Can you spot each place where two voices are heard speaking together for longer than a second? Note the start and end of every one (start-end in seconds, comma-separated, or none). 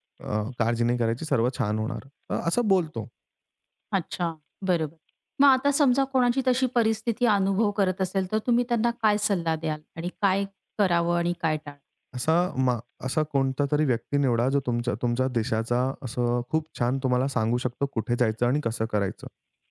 none